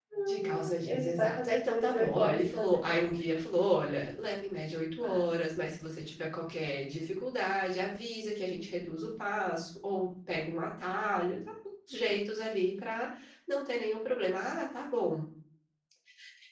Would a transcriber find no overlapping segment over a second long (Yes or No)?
No